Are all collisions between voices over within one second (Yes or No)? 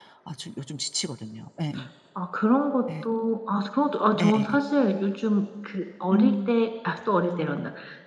Yes